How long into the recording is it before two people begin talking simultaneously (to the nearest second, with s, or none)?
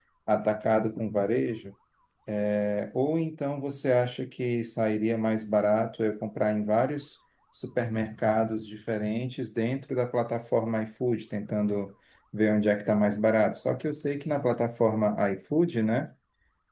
none